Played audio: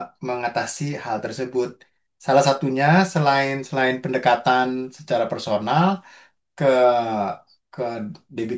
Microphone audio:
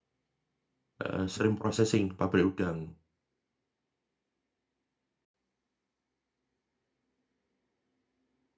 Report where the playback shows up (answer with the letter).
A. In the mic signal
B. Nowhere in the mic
B